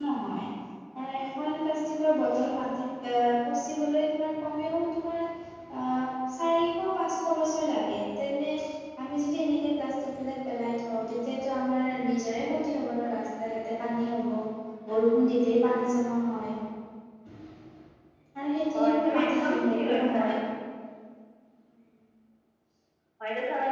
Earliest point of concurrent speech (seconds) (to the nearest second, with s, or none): 19 s